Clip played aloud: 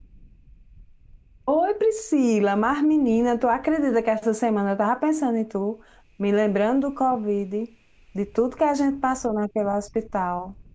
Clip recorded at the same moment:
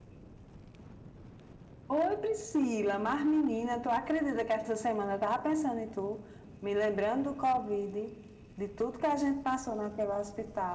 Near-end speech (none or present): none